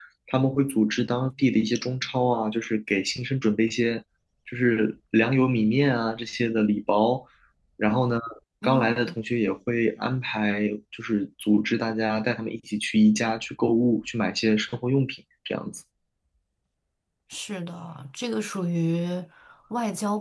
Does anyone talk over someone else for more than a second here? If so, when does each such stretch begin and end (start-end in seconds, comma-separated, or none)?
none